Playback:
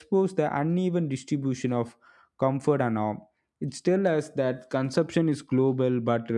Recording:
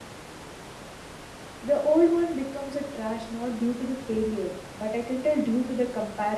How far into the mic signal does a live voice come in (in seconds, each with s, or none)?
1.6 s